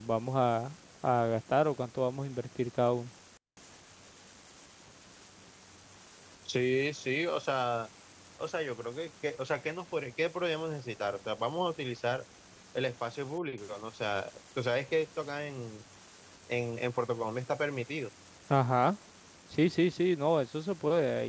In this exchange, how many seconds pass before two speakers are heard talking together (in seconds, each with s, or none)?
none